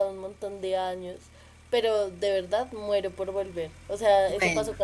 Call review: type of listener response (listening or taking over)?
listening